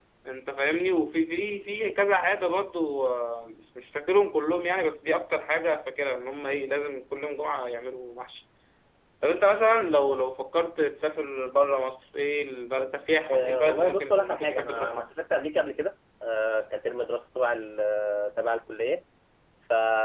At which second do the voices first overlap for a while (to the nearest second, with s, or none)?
13 s